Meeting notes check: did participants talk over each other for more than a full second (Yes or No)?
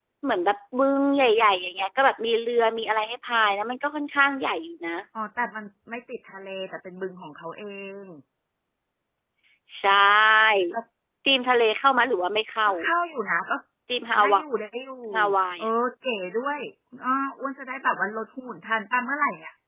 No